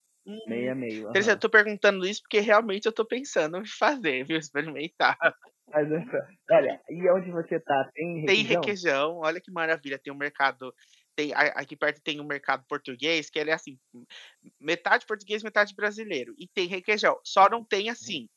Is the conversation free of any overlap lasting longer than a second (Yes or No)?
Yes